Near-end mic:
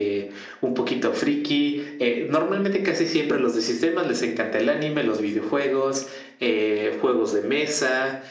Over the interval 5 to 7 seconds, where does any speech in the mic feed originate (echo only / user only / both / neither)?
echo only